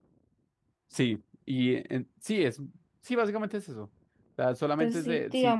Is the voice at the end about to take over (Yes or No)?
Yes